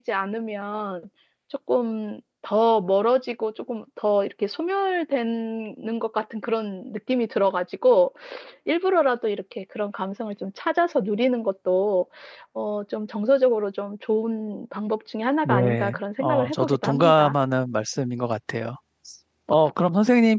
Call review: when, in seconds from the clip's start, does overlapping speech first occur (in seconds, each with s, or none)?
15.4 s